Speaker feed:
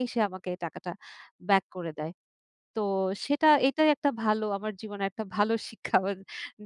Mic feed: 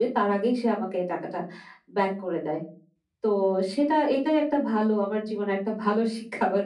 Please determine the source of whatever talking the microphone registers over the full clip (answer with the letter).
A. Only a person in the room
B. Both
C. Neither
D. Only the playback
D